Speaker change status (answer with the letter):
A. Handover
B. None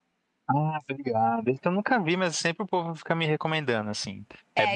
A